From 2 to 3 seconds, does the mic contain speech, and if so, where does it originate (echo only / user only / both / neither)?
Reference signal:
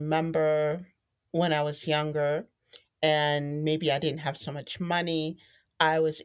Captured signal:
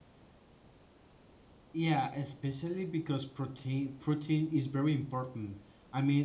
user only